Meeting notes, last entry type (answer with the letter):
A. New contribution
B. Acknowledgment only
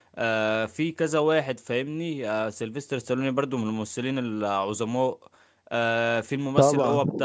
B